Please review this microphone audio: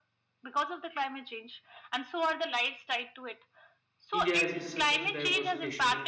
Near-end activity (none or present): present